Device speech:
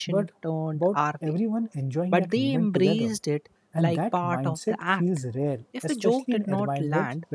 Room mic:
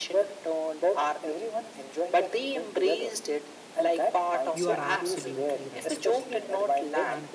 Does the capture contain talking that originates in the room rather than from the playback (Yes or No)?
Yes